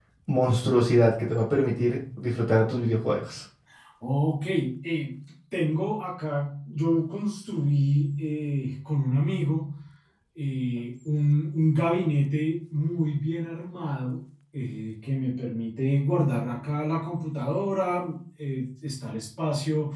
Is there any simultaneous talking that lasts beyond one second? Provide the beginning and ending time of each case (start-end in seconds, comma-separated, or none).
none